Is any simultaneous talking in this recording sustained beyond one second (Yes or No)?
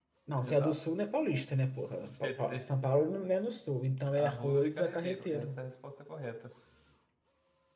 Yes